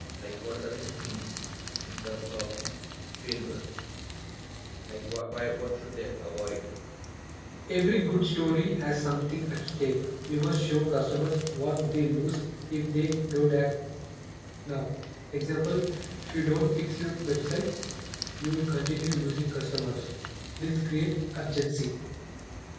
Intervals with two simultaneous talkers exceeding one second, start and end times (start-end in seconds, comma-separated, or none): none